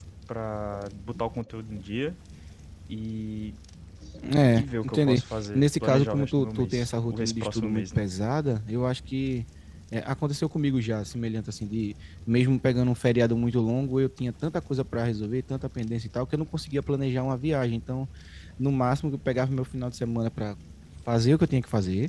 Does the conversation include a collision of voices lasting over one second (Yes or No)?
Yes